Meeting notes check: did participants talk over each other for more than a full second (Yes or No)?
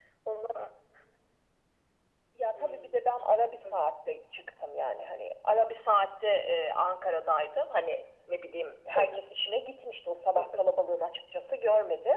No